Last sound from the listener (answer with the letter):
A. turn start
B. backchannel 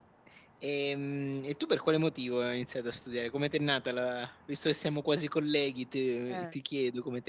B